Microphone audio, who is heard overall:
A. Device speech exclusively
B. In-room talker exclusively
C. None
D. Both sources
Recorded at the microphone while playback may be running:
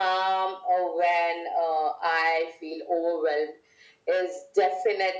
A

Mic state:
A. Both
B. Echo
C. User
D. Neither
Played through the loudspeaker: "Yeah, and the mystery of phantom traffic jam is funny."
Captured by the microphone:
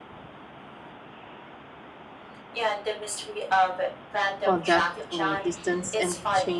A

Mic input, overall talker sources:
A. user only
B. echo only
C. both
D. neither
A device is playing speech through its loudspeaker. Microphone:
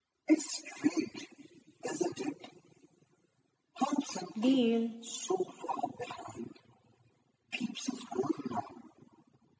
C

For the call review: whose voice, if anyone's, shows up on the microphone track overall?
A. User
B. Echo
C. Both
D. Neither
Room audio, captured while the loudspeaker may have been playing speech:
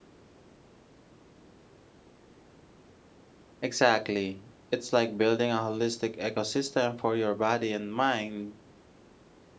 A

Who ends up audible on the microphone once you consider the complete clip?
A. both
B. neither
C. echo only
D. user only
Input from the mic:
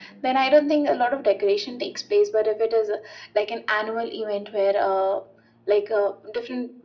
C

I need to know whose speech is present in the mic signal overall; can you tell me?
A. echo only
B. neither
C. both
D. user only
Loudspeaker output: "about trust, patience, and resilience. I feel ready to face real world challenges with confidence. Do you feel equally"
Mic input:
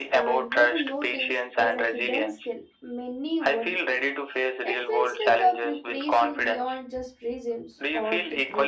C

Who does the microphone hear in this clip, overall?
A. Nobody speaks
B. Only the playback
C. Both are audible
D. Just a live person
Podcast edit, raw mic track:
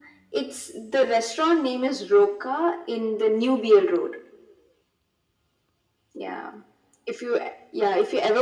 B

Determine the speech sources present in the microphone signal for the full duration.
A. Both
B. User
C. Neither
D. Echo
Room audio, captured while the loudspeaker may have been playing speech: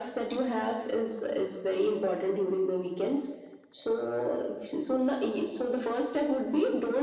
D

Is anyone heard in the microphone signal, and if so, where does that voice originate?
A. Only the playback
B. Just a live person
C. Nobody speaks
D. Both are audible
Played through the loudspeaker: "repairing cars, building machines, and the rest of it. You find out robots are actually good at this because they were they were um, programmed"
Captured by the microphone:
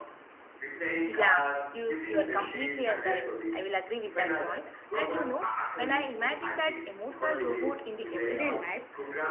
D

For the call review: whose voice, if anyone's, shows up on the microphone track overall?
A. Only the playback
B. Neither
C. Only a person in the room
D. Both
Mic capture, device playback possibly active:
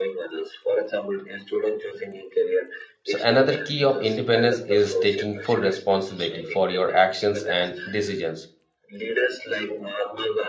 D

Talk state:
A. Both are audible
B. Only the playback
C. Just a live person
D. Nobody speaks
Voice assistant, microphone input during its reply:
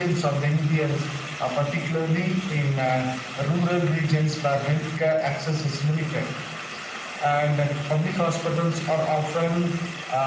B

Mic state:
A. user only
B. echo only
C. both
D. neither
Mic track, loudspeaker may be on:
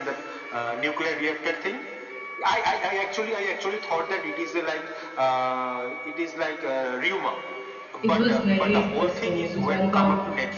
C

